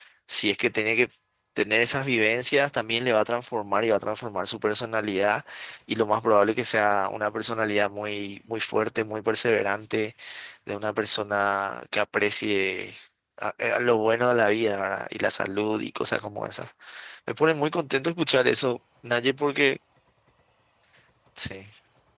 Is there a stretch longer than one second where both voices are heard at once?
No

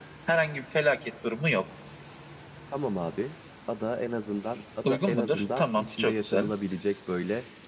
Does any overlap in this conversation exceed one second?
Yes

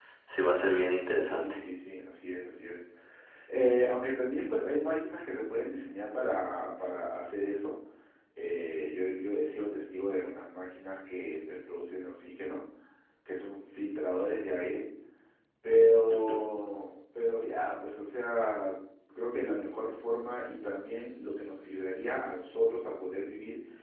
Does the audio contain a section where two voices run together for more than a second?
No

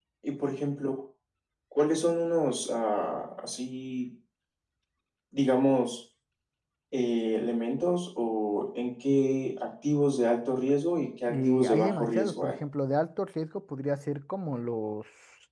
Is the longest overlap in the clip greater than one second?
Yes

